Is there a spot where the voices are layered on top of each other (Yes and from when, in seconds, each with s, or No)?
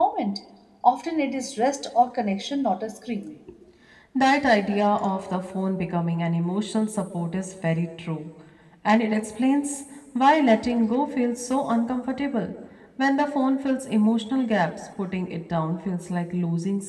No